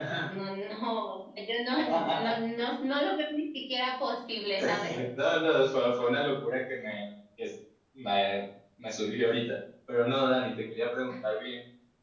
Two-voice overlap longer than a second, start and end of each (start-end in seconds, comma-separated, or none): none